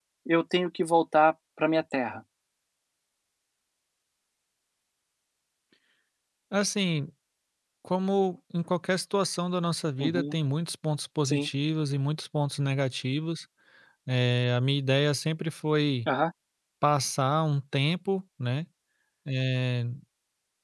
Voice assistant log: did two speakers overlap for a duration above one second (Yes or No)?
No